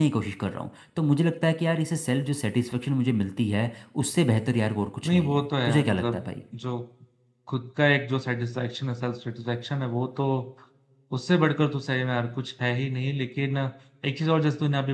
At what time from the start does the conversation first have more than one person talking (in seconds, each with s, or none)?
5.0 s